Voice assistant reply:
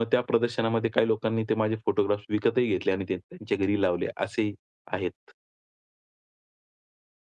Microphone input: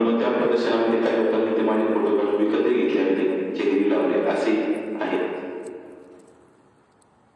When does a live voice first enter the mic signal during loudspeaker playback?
none

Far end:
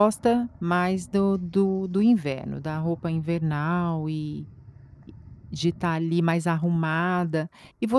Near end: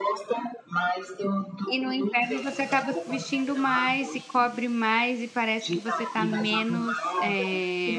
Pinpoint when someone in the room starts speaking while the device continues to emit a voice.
1.7 s

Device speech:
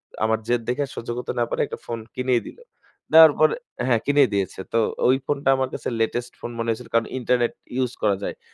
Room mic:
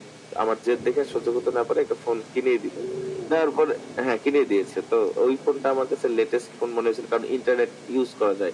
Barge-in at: none

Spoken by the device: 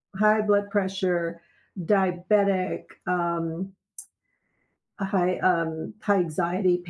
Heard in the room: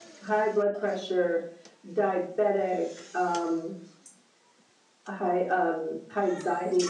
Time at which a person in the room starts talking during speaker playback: none

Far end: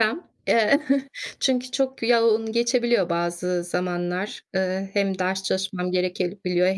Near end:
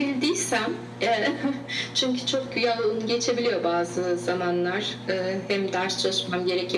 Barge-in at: none

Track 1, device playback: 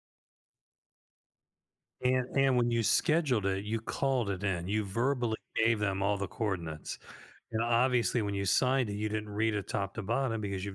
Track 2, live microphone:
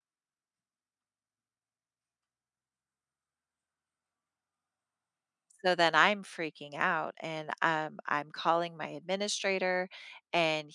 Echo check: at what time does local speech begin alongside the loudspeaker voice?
5.6 s

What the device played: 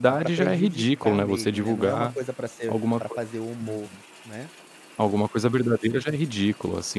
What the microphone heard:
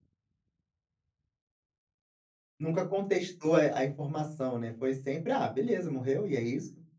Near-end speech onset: 2.6 s

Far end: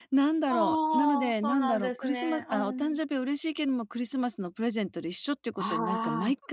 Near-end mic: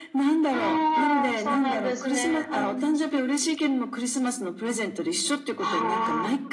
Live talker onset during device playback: none

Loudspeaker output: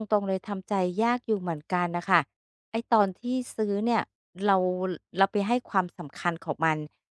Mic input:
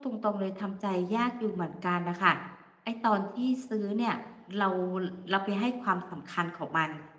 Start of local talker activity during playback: none

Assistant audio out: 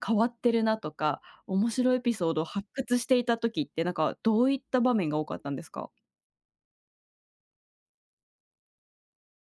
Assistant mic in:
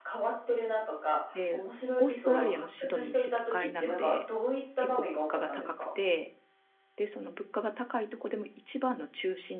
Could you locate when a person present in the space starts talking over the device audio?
1.3 s

